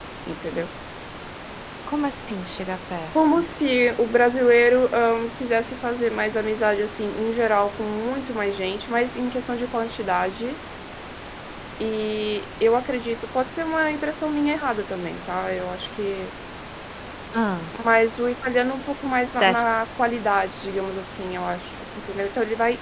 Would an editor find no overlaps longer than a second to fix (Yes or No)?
Yes